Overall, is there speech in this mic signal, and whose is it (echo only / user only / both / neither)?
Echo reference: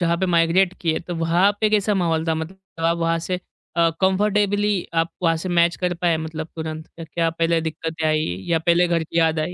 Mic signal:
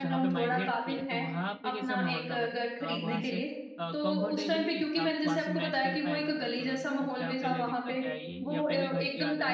both